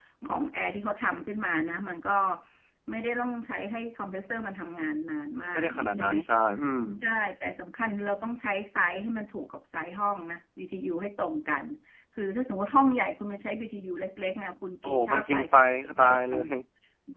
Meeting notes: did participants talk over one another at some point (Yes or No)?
Yes